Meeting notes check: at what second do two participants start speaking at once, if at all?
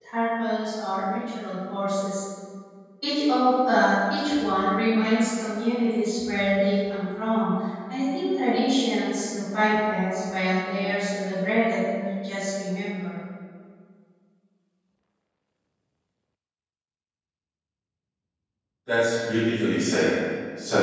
none

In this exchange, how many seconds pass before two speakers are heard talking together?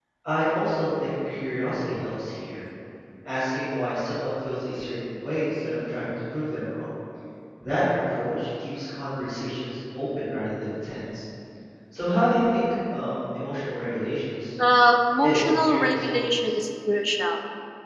15.2 s

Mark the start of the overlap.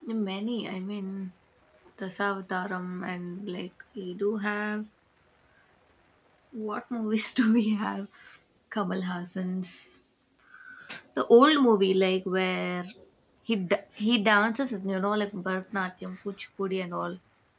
none

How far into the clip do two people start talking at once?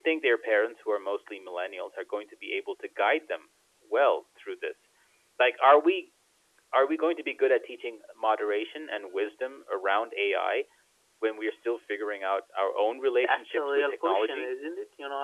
13.2 s

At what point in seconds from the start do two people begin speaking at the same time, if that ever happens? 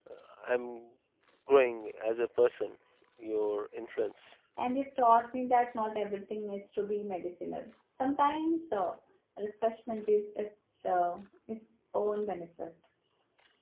none

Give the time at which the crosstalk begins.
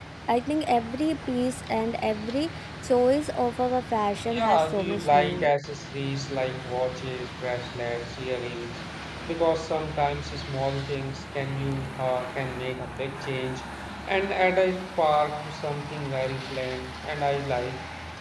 4.3 s

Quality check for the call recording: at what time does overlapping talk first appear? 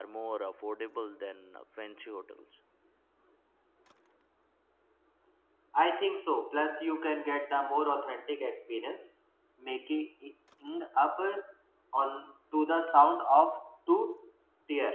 none

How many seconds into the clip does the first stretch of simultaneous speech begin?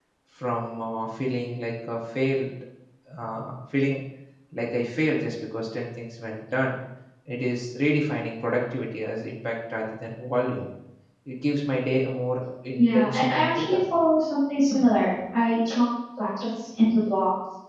12.8 s

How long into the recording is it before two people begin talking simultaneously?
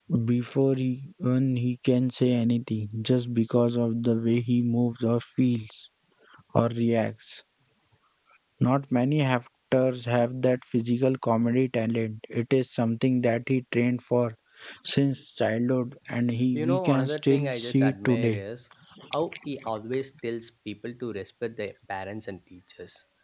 16.5 s

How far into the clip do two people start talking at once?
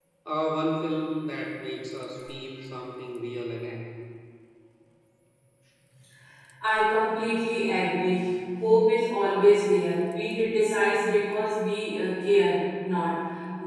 none

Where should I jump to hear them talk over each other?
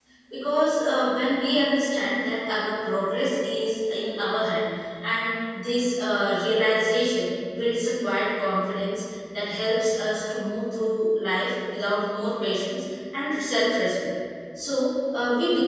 none

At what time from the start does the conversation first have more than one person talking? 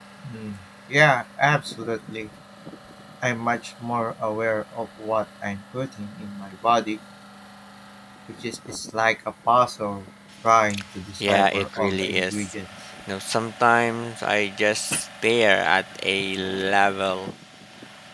11.2 s

